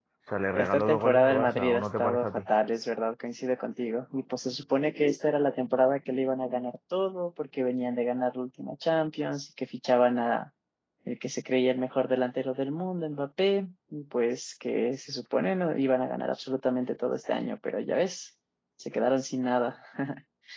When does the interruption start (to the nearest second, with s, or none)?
1 s